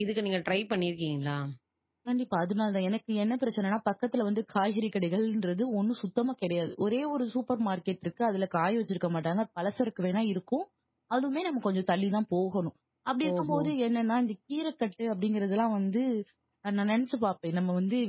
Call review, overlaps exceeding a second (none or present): none